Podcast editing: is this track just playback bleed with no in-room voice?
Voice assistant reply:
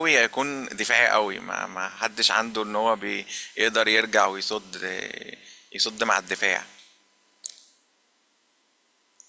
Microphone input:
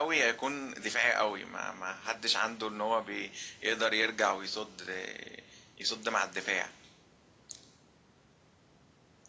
Yes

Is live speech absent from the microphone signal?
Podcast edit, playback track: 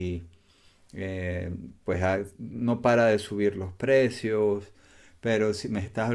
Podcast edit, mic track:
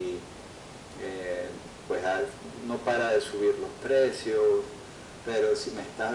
Yes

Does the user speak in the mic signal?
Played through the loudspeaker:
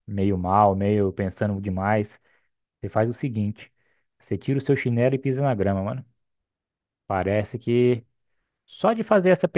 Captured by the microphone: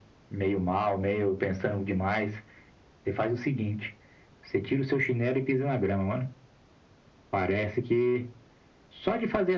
No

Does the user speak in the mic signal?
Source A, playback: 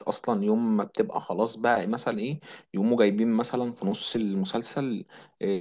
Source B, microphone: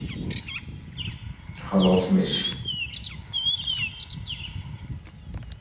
Yes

